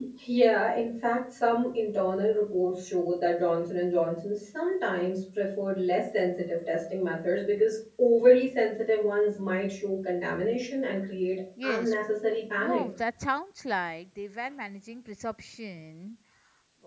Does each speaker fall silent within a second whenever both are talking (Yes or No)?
Yes